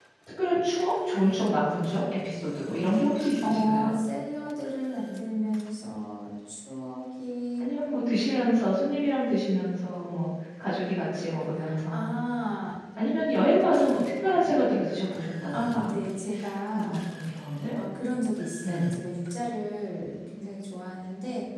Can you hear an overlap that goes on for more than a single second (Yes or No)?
No